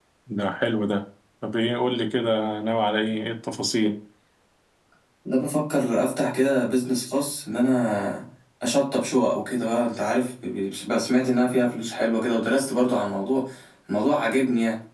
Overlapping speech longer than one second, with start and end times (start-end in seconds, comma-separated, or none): none